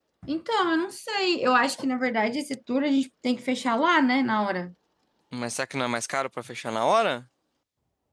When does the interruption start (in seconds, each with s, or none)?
none